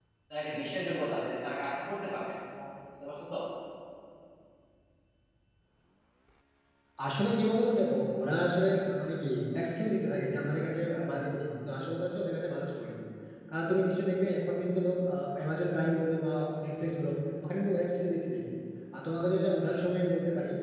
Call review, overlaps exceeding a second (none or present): none